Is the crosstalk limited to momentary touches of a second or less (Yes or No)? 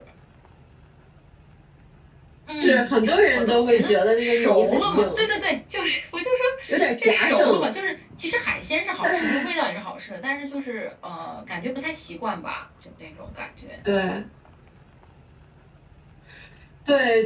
No